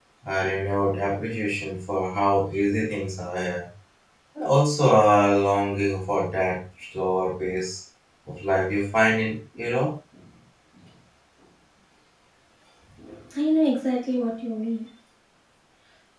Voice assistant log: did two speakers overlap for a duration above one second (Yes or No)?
No